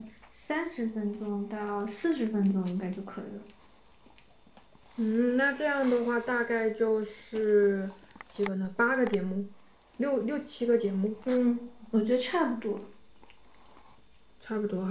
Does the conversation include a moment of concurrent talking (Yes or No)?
No